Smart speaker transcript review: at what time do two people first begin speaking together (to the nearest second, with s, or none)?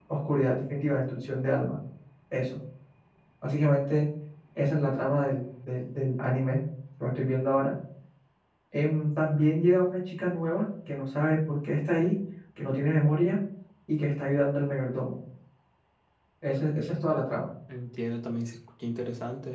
none